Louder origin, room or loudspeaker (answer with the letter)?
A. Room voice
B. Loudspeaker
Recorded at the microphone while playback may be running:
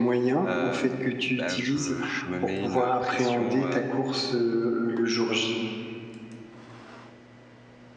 B